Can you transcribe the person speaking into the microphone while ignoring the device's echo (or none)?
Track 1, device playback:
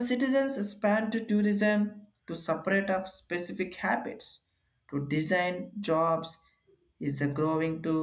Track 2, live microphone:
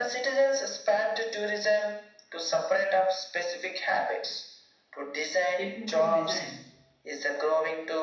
technical designs